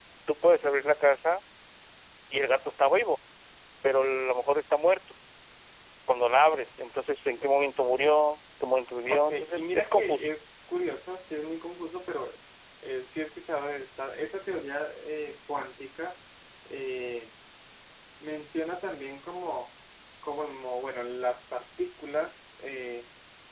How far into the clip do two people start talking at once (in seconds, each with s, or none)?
9.1 s